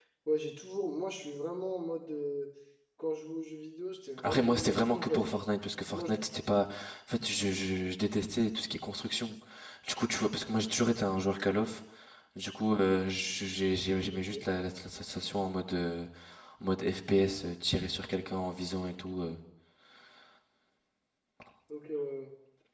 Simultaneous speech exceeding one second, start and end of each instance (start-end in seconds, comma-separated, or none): 4.2-5.5